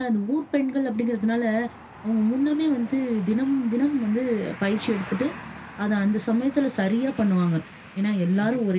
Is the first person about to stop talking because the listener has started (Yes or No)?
No